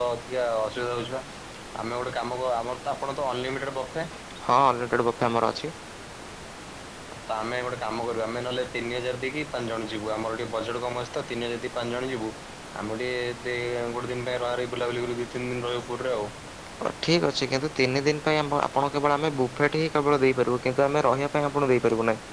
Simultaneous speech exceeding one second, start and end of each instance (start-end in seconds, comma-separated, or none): none